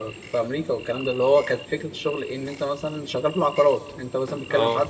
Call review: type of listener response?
listening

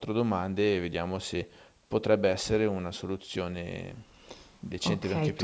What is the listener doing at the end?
taking over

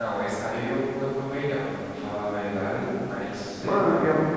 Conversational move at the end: taking over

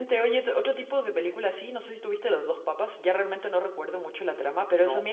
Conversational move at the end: listening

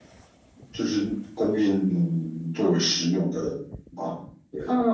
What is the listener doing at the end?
taking over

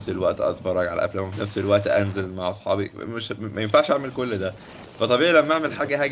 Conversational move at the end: listening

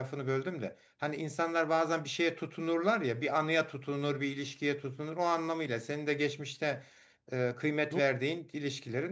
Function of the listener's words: listening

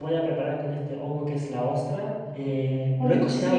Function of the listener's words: listening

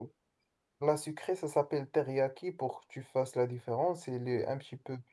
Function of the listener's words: listening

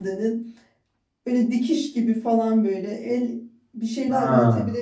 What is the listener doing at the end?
listening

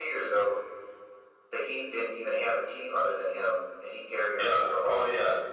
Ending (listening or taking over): taking over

